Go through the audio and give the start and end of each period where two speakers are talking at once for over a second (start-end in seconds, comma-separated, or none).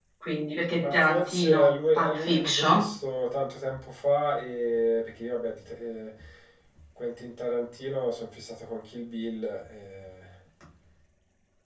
0.6-2.9